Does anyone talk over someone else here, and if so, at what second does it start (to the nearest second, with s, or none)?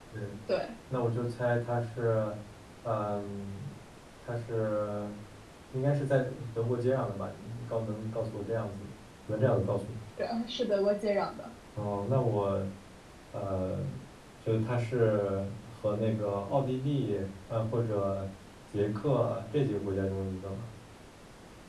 none